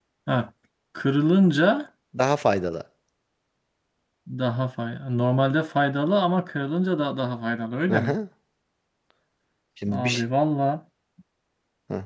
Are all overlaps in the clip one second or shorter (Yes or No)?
Yes